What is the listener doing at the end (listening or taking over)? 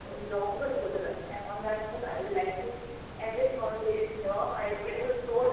listening